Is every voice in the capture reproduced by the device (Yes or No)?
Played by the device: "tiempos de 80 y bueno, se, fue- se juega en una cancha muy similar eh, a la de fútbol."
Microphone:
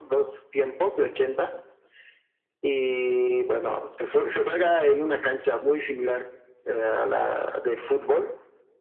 Yes